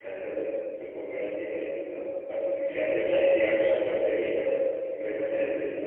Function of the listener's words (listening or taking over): taking over